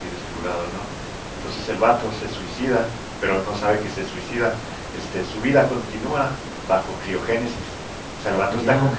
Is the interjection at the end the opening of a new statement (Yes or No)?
No